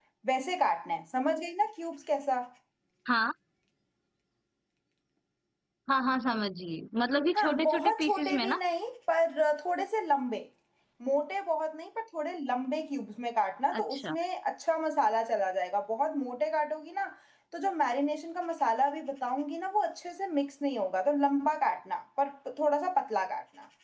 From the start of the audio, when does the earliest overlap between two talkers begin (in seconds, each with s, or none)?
7.3 s